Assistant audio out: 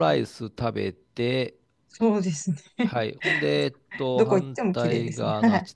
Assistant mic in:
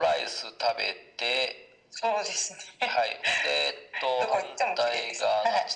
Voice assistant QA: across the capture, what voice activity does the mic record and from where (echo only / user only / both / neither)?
echo only